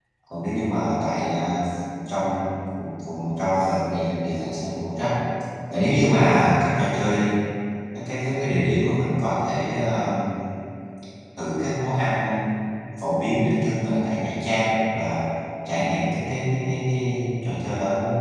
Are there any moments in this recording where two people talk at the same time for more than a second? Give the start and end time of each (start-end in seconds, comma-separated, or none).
none